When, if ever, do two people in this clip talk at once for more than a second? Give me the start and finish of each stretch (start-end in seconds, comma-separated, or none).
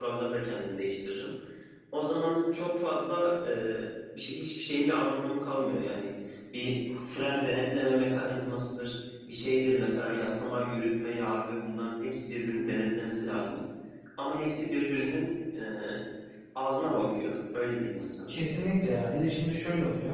none